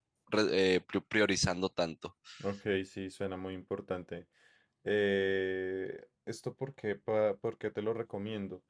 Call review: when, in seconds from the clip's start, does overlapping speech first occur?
none

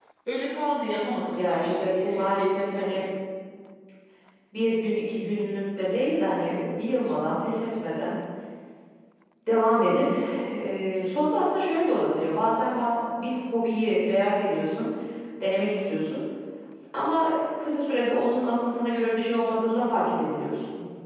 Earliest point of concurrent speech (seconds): 1.3 s

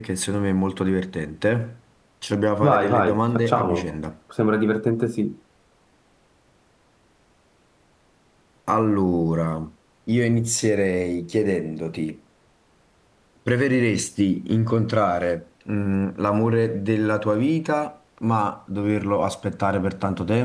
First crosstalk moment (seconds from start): 2.6 s

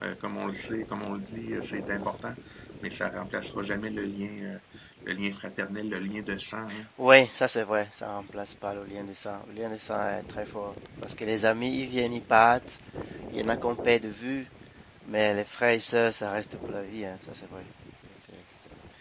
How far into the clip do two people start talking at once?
none

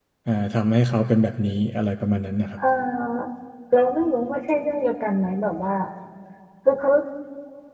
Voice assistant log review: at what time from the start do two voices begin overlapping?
none

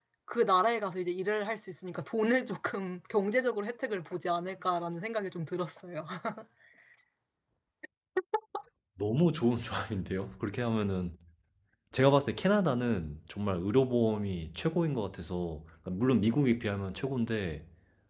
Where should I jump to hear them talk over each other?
none

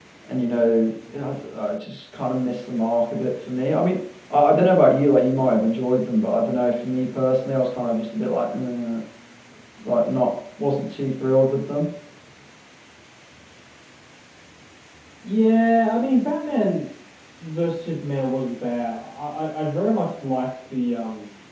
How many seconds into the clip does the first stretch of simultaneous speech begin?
none

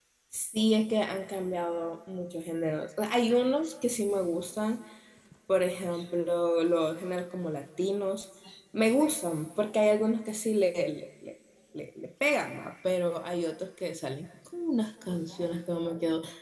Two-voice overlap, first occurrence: none

